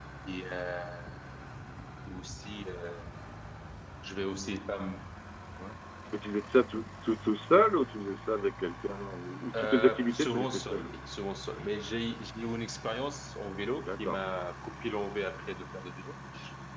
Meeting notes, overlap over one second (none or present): present